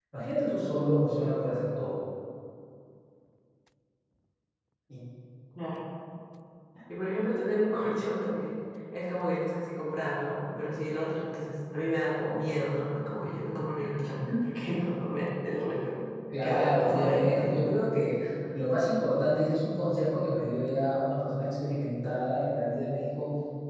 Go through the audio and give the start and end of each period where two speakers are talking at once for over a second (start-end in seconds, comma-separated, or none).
16.4-17.8